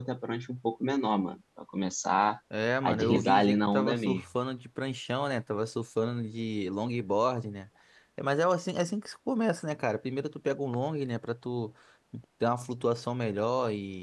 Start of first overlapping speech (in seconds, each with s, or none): 2.8 s